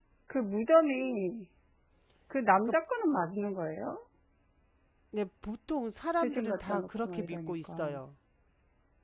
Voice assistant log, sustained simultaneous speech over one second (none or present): present